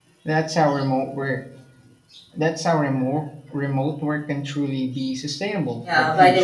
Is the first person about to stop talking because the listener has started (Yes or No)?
Yes